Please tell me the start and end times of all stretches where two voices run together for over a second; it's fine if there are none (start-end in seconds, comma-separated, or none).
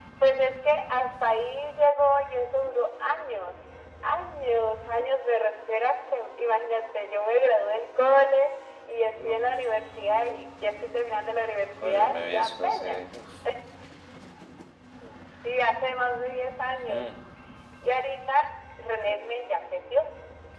11.8-13.2